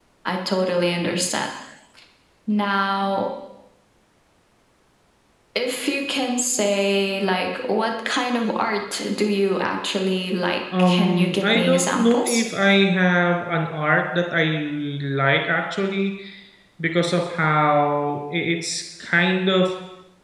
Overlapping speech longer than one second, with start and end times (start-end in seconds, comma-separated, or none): 10.8-12.4